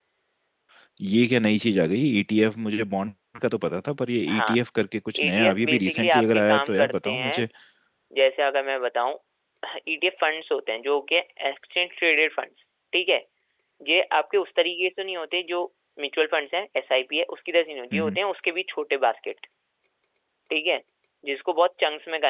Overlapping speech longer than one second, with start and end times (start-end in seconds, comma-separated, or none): 5.2-7.5